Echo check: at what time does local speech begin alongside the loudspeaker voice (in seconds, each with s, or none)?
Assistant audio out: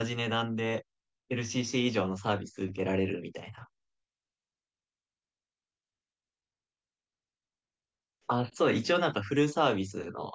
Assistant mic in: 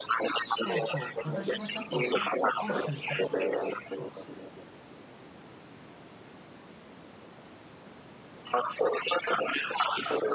0.5 s